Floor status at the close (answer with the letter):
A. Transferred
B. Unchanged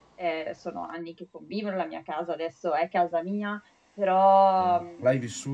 A